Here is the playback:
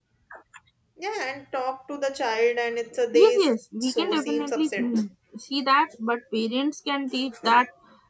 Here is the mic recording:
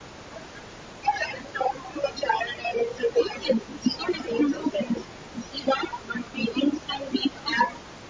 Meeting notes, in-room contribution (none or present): none